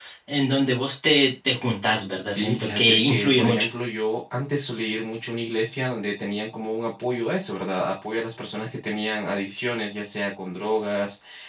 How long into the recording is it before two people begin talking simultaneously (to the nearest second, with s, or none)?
2 s